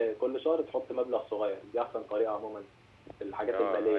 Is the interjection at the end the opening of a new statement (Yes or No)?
Yes